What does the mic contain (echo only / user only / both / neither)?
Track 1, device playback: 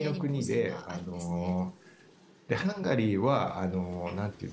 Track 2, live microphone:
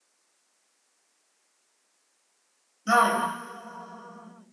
user only